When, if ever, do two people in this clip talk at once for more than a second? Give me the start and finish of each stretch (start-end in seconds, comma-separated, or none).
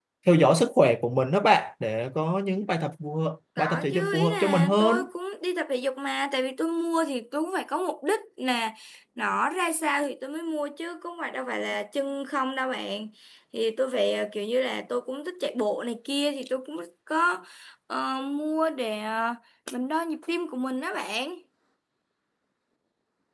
3.6-5.0